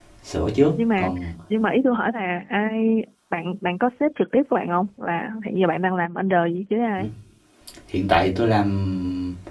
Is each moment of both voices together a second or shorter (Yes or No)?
Yes